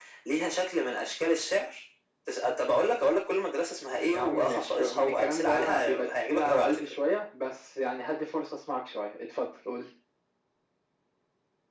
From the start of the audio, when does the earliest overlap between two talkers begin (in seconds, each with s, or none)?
4.1 s